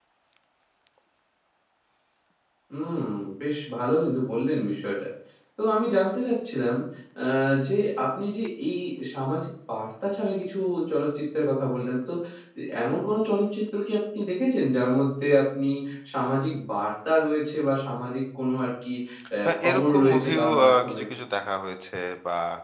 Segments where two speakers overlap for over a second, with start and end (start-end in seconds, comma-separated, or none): 19.4-21.0